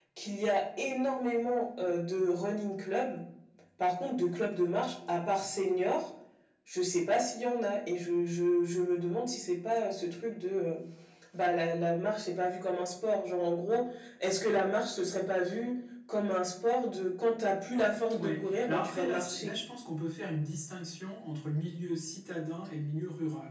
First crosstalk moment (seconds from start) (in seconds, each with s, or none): 18.1 s